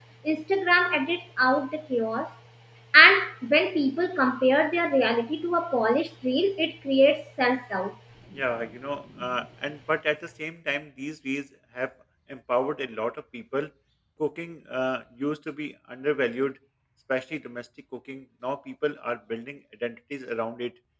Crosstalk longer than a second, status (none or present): none